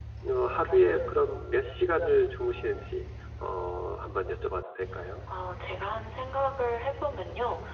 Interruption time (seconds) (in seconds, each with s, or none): none